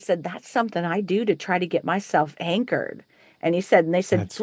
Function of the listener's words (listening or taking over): listening